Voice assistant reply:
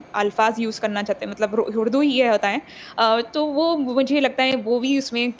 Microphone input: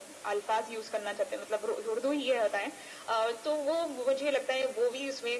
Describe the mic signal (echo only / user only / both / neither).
echo only